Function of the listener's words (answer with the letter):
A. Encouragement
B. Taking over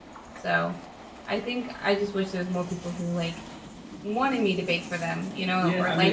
B